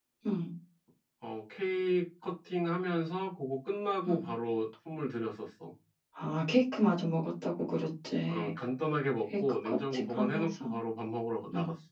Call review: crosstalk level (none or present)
present